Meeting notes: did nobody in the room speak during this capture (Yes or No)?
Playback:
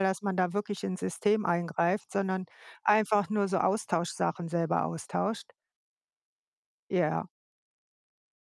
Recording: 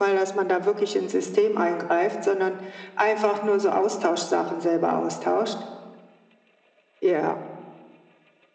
Yes